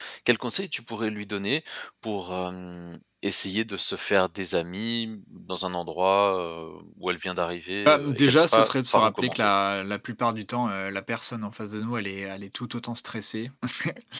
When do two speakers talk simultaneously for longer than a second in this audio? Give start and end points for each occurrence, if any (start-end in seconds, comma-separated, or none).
7.8-9.5